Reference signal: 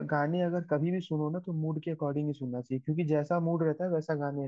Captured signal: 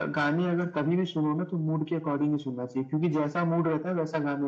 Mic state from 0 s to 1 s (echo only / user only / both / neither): echo only